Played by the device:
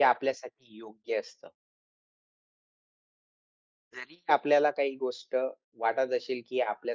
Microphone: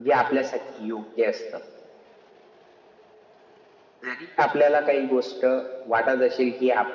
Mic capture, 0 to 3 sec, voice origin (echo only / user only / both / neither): echo only